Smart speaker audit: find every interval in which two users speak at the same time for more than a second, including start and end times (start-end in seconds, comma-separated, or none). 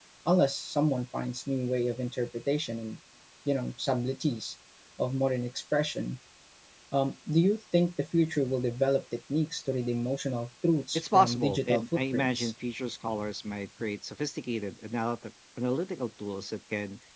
10.9-12.5